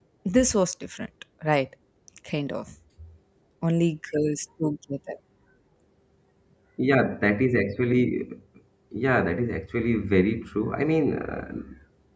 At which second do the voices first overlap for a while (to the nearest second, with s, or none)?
none